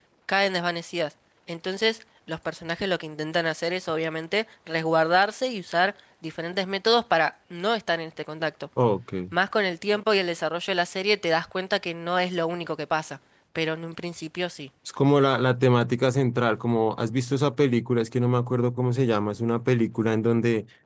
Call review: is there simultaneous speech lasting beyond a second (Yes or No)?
No